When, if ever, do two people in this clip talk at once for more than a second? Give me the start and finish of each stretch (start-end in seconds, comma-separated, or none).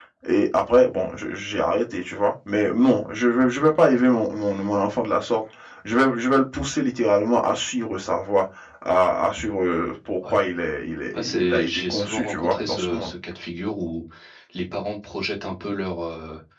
11.1-13.1